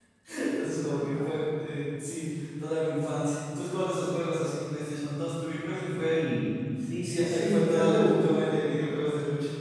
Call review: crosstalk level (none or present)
present